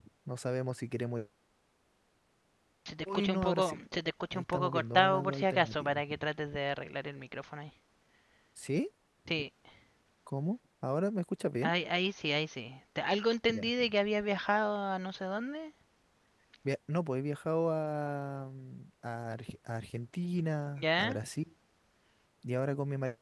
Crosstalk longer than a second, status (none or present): present